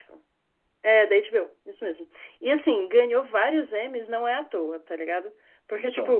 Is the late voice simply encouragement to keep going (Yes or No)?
Yes